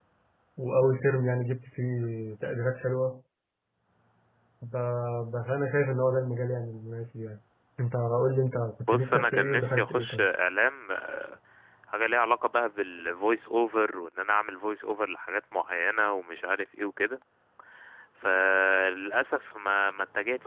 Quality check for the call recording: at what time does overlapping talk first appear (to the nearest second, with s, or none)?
9 s